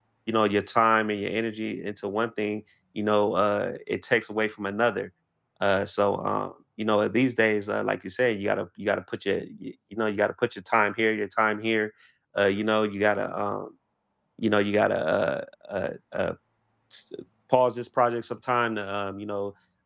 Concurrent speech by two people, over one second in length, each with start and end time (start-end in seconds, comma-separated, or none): none